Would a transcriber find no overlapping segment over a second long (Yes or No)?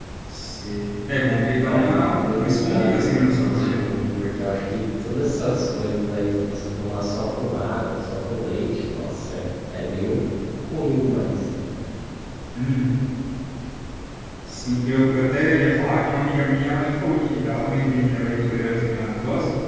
No